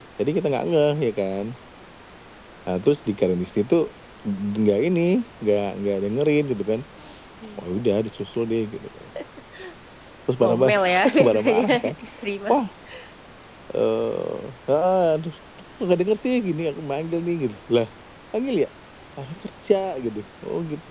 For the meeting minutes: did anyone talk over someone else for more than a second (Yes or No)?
Yes